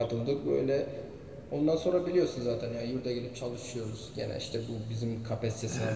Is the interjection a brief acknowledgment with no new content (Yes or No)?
Yes